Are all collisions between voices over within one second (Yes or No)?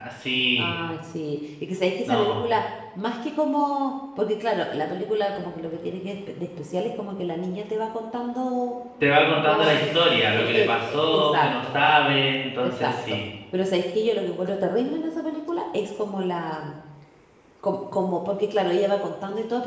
No